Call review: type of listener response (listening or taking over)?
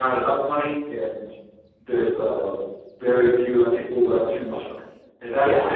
listening